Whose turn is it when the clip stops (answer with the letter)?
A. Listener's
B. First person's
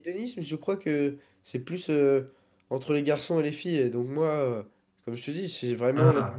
B